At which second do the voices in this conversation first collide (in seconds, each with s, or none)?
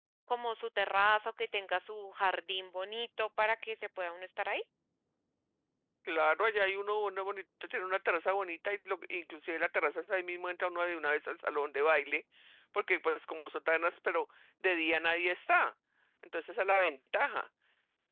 none